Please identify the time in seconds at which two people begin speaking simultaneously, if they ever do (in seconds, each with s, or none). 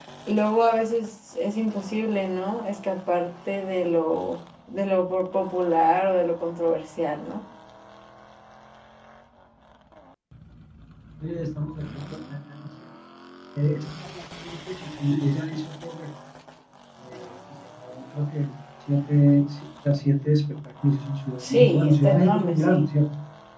21.4 s